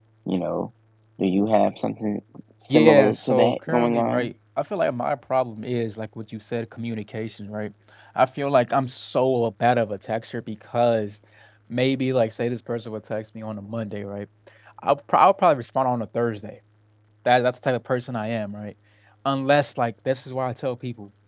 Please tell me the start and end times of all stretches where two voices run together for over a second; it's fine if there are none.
2.7-4.3

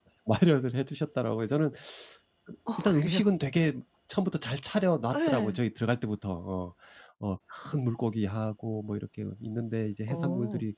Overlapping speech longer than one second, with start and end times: none

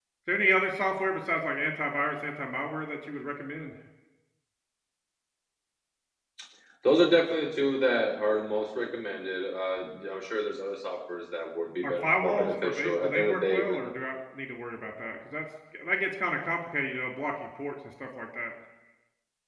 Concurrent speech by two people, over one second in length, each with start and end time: 11.8-13.8

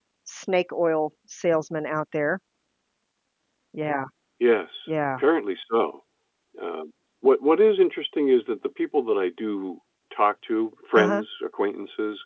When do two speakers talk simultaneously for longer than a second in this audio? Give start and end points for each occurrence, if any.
none

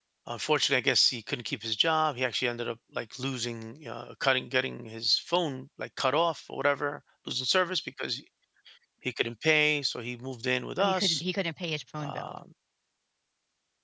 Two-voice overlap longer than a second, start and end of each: none

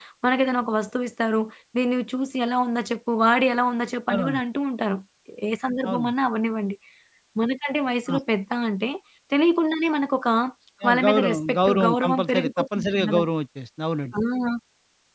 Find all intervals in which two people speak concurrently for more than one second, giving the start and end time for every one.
10.9-13.2

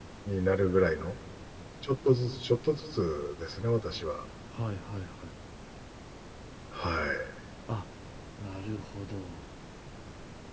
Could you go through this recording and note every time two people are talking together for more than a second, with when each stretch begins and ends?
none

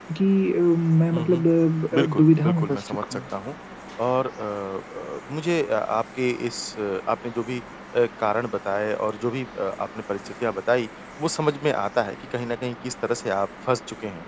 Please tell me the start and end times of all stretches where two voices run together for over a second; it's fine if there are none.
1.9-3.2

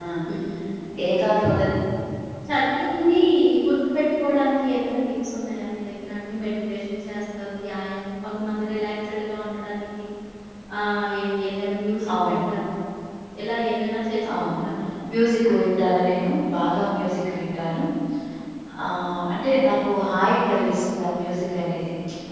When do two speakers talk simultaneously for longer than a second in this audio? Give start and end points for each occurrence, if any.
none

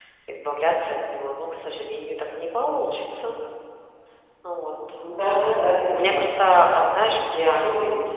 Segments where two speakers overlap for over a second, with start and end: none

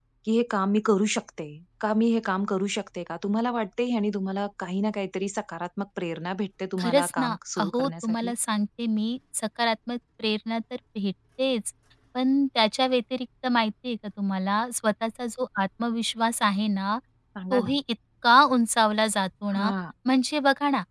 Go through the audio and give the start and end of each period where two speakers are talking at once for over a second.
6.8-8.3

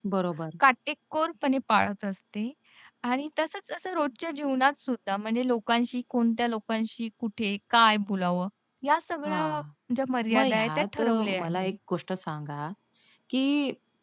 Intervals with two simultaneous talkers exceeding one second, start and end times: 10.3-11.8

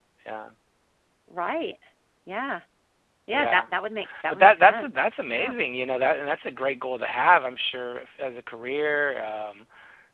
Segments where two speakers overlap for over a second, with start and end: 4.3-5.5

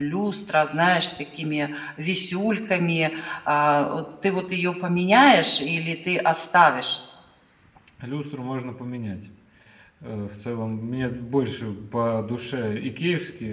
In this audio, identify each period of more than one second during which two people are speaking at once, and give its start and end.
none

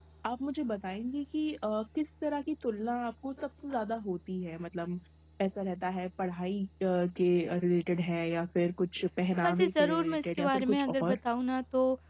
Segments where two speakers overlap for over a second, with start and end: 9.4-11.2

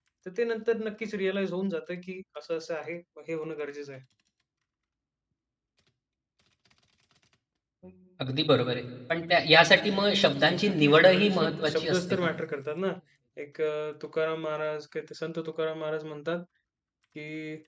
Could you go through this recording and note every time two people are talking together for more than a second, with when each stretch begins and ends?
10.3-12.0

